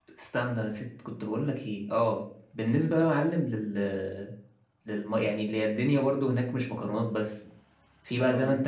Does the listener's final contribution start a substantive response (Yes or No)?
No